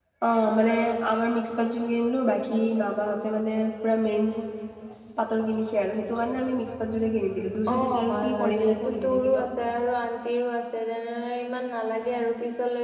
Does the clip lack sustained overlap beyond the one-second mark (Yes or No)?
No